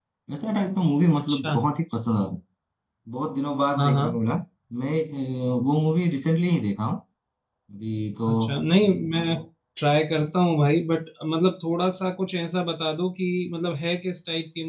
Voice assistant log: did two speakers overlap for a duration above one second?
No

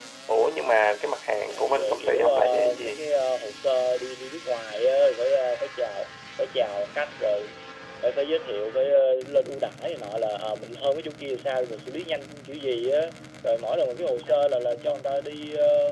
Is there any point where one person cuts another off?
Yes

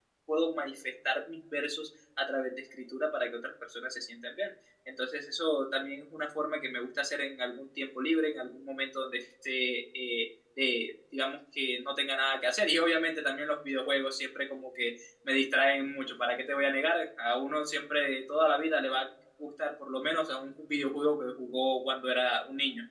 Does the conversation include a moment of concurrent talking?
No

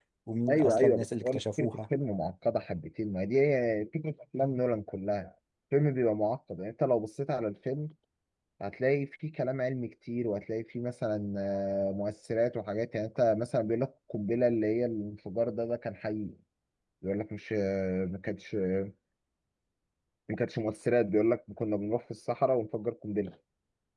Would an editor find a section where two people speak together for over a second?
Yes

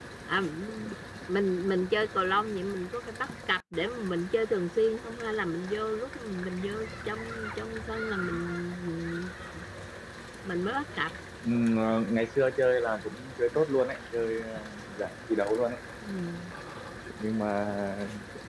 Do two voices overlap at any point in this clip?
No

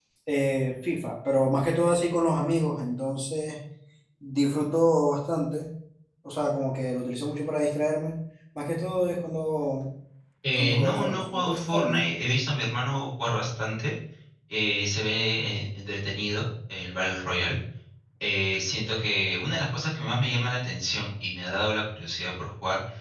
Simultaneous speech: Yes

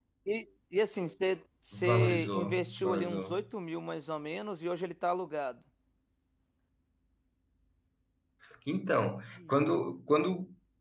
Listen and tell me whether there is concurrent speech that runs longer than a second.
Yes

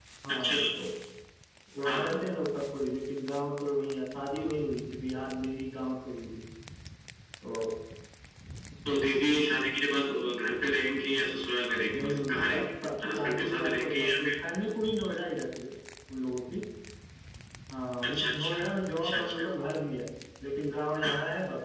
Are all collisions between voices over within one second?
No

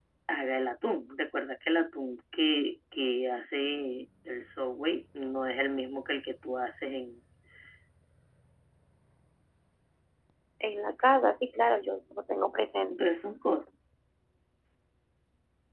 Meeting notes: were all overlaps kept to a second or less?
Yes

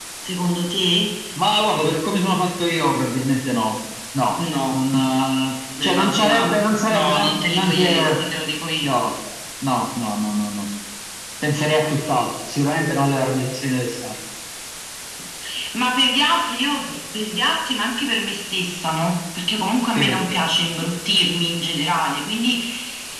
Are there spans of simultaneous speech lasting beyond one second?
Yes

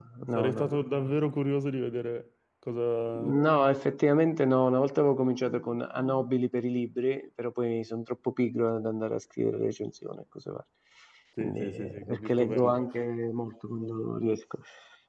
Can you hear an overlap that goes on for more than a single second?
Yes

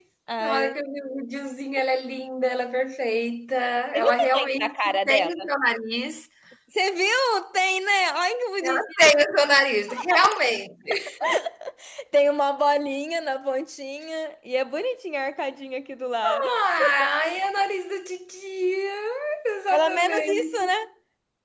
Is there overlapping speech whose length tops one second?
Yes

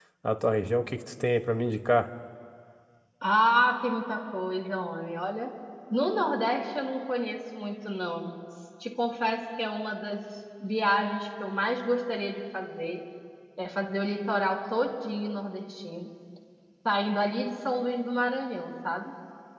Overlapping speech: No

